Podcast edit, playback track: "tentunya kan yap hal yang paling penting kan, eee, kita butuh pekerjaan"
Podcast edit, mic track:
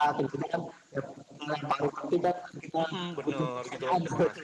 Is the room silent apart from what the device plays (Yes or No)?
No